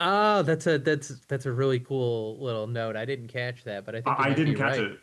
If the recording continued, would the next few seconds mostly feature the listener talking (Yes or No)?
Yes